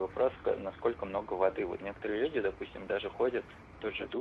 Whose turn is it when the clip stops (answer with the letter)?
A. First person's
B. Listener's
A